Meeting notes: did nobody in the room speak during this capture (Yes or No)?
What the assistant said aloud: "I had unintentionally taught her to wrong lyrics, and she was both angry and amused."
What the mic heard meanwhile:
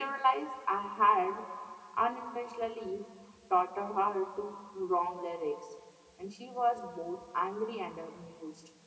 Yes